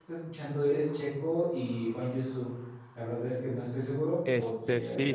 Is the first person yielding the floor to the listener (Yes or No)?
Yes